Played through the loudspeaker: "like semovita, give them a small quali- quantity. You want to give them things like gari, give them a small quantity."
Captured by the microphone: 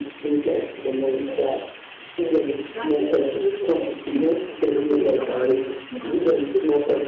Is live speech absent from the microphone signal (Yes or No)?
No